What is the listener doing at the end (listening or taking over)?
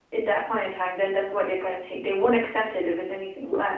listening